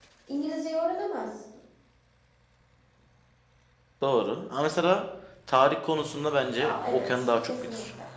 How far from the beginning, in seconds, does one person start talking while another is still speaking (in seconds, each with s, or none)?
6.6 s